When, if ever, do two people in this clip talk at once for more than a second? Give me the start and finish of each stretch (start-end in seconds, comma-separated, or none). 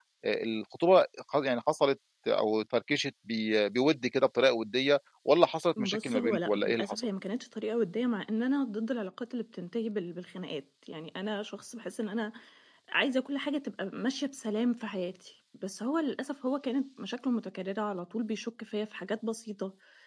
5.8-7.1